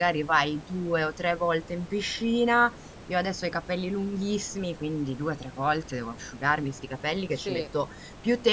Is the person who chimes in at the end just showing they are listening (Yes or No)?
Yes